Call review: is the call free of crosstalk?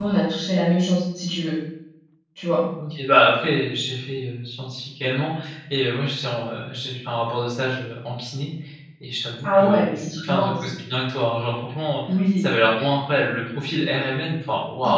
No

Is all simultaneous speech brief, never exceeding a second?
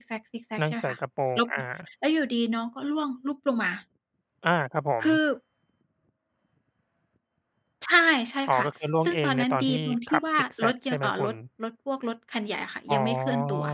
No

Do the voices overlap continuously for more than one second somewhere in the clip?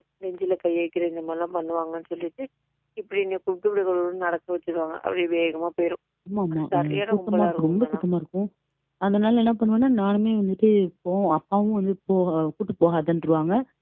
Yes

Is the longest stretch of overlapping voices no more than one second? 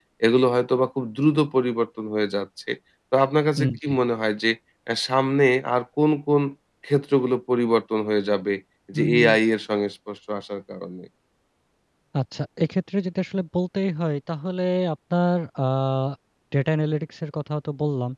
Yes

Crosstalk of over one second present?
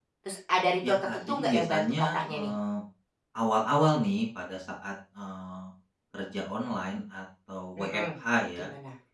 Yes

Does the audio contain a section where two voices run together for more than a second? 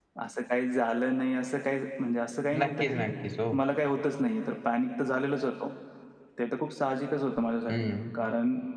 No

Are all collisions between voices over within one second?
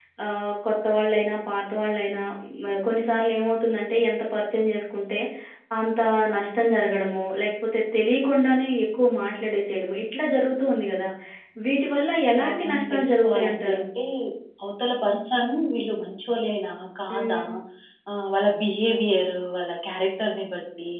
No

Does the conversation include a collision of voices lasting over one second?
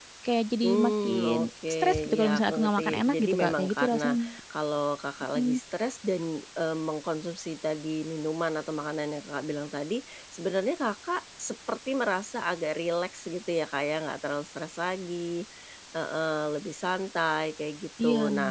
Yes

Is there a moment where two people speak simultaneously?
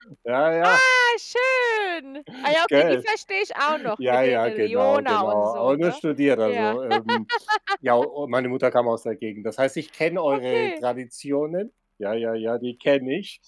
Yes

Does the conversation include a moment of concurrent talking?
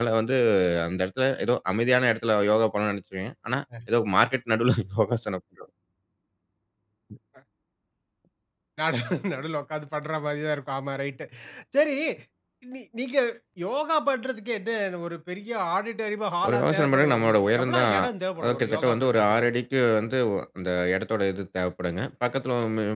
Yes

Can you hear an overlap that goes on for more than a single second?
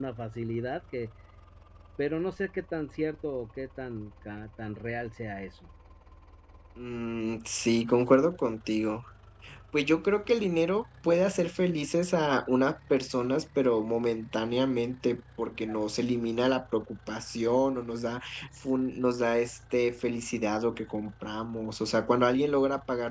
No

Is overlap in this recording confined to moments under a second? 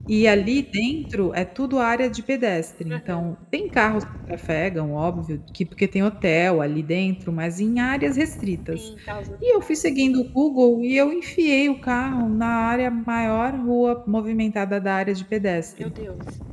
Yes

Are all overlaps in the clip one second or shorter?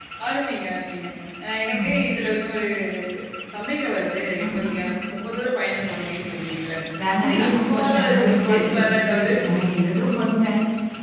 No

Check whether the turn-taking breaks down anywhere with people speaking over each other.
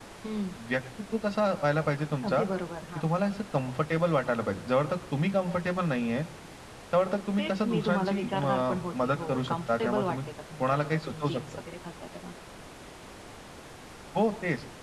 Yes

